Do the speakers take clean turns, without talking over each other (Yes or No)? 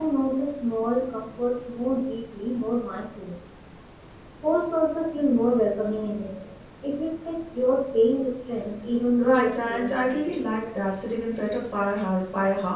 No